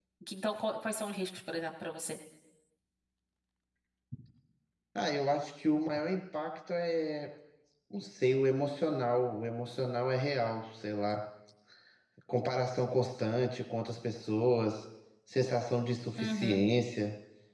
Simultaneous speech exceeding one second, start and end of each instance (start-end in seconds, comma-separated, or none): none